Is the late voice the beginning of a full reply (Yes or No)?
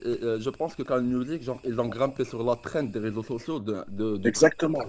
Yes